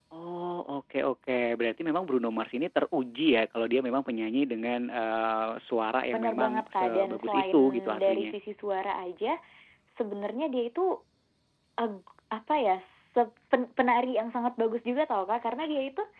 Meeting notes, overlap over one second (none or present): present